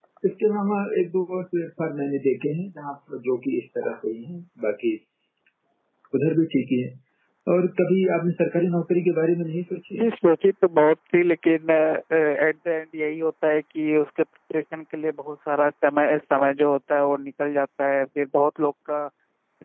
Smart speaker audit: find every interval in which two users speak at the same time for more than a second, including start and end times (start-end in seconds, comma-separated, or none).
none